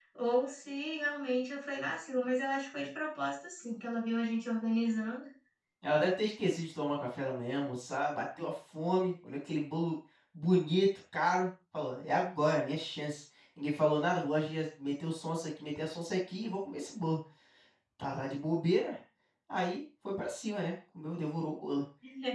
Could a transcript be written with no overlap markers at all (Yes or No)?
Yes